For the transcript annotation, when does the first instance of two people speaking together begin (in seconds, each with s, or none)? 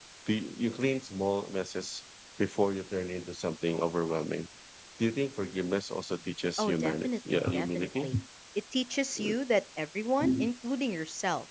6.6 s